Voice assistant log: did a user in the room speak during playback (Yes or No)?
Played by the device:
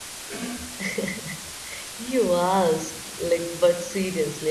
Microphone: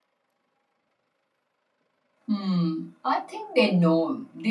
Yes